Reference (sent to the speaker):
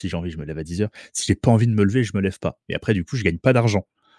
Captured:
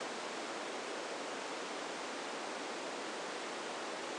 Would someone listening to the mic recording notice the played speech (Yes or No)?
No